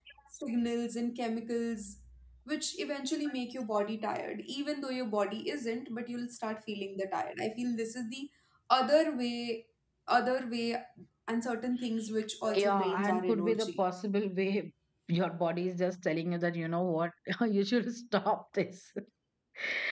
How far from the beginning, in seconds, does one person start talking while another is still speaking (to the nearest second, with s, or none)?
13 s